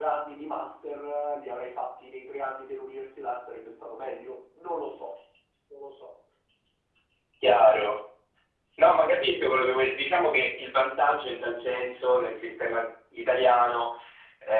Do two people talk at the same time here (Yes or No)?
No